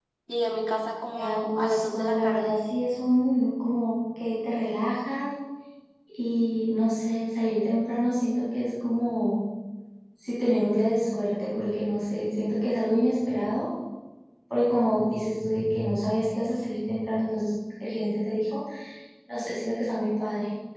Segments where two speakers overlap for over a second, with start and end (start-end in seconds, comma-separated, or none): 1.2-2.5